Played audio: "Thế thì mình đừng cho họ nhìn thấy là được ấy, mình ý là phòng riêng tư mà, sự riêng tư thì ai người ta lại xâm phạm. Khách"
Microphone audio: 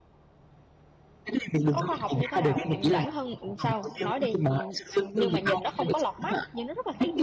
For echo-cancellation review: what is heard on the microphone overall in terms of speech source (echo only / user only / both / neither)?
both